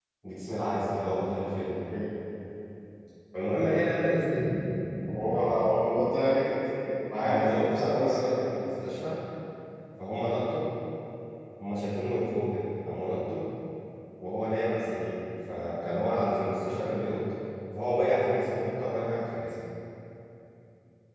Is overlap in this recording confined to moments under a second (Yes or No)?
No